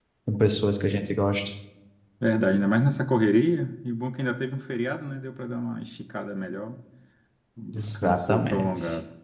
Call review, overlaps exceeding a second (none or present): present